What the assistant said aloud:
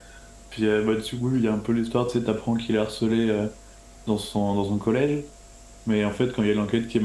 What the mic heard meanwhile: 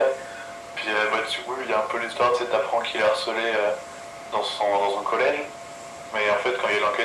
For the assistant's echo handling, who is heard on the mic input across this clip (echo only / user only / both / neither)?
echo only